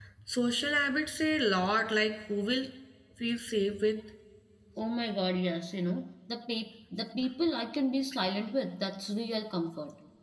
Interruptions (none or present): none